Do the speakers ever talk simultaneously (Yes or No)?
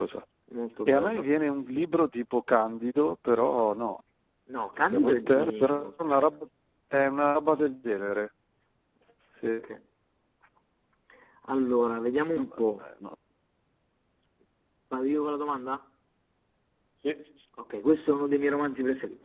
Yes